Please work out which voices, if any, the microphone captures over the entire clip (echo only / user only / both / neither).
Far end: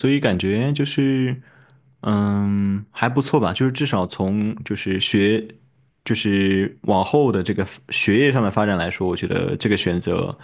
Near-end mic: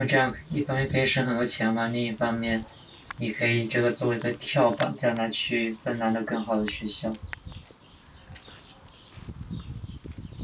user only